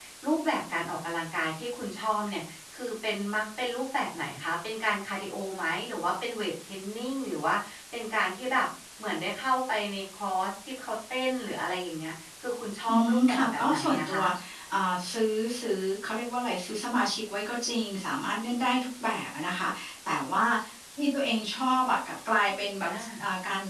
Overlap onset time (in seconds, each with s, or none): 12.9 s